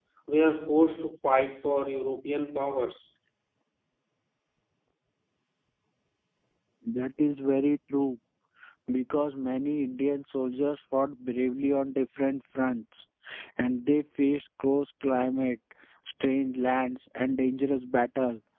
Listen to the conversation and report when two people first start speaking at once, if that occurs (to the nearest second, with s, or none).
none